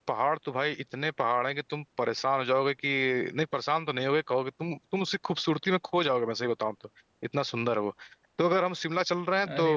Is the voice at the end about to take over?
No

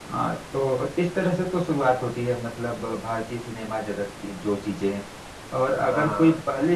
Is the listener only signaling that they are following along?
Yes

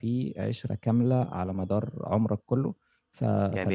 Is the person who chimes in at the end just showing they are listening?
No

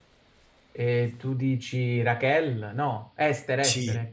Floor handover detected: Yes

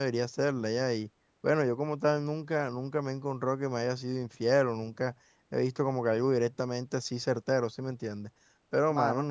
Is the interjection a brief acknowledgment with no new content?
Yes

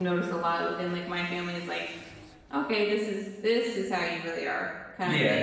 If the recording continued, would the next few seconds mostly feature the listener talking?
Yes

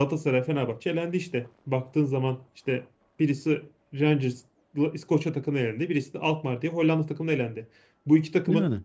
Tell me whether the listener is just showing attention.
Yes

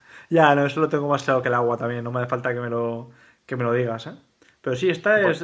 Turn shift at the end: No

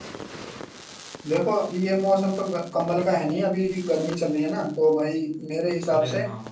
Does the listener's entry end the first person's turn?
No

